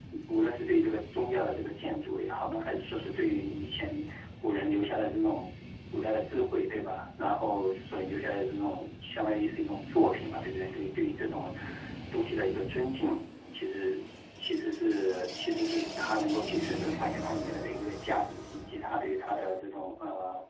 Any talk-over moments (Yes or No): No